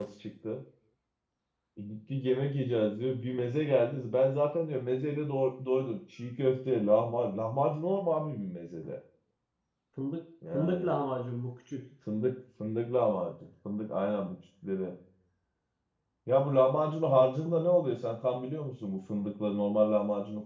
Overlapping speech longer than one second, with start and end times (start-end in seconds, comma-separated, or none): none